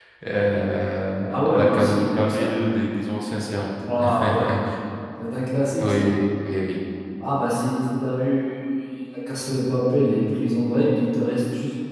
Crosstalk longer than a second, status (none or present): present